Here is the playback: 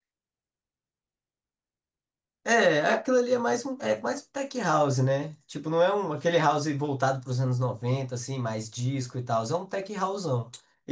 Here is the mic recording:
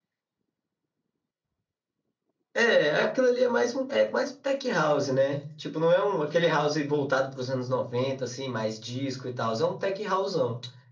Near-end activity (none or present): none